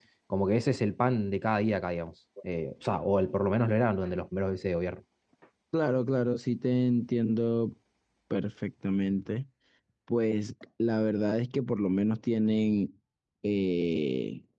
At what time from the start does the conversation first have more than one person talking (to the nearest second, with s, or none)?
none